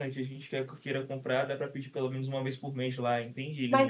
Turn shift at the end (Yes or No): Yes